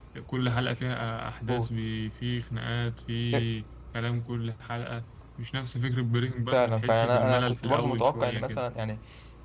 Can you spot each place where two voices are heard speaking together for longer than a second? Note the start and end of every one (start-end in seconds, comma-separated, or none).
6.5-8.6